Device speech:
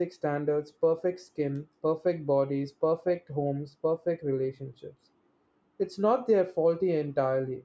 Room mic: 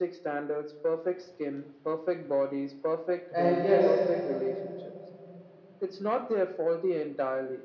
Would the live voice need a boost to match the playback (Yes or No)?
No